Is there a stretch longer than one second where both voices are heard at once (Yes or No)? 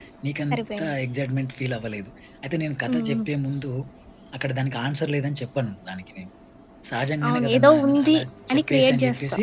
Yes